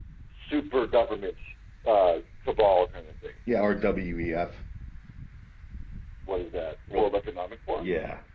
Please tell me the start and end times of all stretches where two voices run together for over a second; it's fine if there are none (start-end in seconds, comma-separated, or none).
none